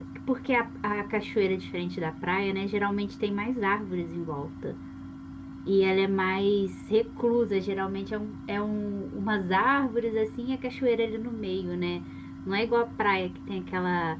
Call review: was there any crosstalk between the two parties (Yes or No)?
No